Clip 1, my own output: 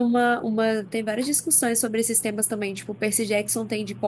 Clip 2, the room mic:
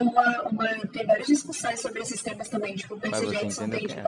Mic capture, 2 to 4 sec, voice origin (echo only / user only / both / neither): both